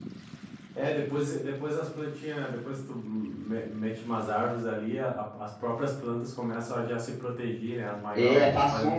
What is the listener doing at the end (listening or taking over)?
taking over